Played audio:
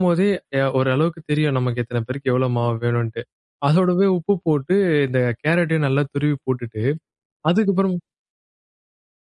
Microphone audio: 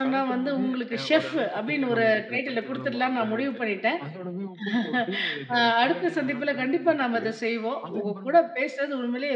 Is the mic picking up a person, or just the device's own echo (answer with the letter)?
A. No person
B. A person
B